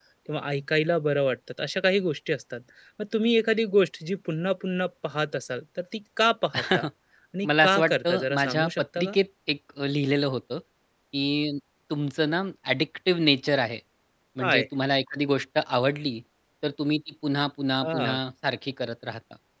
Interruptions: present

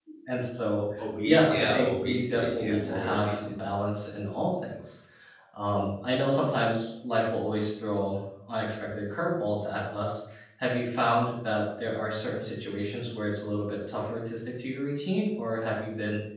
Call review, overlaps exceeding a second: present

